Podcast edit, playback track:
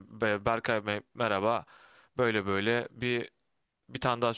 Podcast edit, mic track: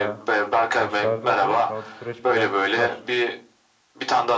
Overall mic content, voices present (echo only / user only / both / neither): both